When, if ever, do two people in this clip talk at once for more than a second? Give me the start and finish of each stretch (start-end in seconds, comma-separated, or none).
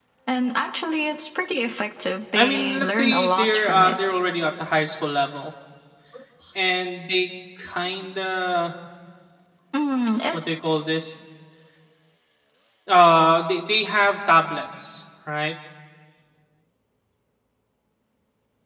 2.4-4.0